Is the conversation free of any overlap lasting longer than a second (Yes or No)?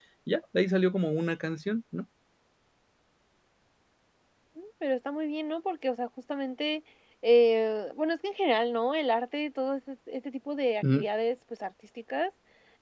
Yes